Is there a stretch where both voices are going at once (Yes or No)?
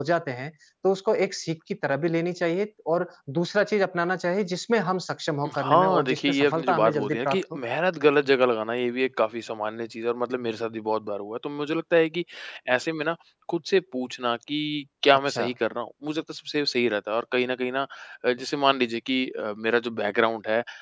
Yes